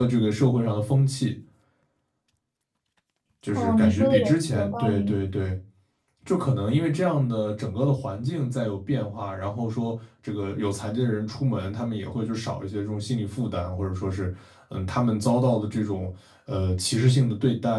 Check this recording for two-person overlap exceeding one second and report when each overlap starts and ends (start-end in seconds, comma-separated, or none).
3.5-5.2